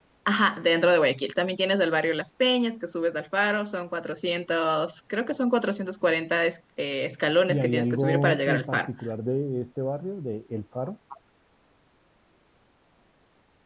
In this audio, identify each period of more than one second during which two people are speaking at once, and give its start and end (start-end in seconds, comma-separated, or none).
7.5-8.9